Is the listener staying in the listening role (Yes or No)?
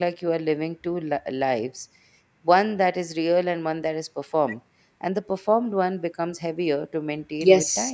No